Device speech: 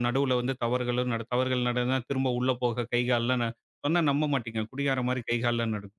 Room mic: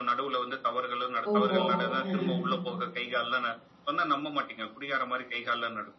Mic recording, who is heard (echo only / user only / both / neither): both